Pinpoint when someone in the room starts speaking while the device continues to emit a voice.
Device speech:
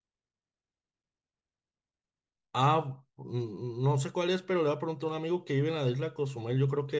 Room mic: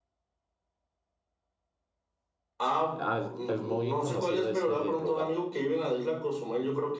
3.0 s

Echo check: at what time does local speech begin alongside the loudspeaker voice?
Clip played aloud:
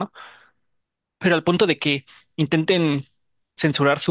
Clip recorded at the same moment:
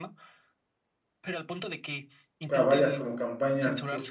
2.5 s

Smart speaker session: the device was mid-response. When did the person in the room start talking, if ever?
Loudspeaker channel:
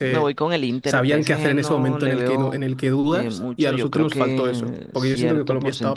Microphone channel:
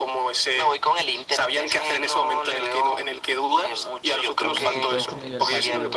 4.4 s

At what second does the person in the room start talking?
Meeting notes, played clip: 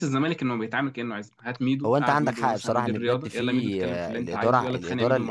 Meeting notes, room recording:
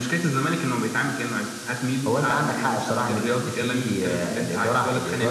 none

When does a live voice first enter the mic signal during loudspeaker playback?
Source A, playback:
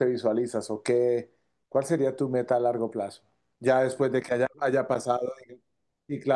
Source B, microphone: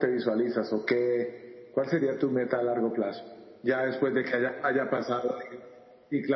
none

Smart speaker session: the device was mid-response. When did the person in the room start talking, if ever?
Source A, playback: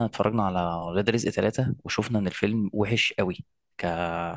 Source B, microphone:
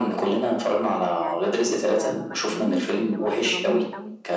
0.6 s

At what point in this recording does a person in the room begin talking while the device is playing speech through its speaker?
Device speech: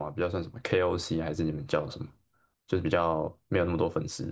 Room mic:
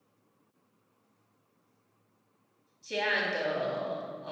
2.8 s

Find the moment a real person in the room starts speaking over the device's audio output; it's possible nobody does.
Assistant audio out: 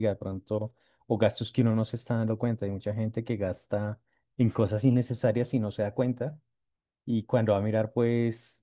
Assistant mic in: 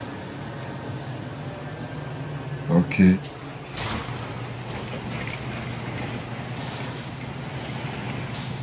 2.7 s

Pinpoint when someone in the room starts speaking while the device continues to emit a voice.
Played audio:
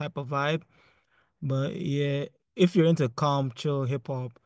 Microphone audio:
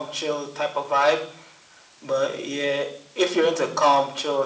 none

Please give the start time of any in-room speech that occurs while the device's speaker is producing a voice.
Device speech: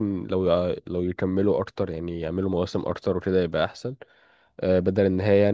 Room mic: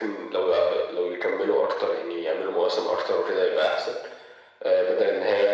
none

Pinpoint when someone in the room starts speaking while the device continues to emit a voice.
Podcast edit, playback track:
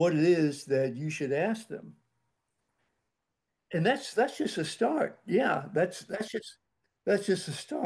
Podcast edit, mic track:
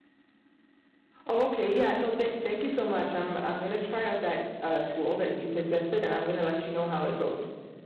1.2 s

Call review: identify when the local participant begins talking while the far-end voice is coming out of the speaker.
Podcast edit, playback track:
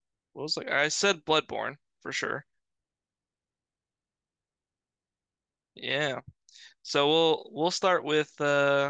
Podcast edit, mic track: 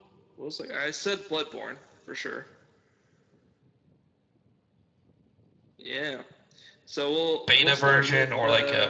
7.5 s

